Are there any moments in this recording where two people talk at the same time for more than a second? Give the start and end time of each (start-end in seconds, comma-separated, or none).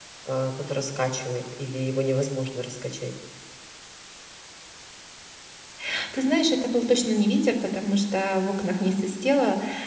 none